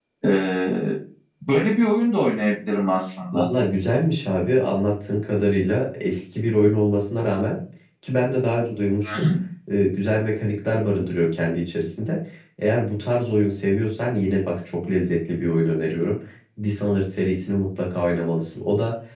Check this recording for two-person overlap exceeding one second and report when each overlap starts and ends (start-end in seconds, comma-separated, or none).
none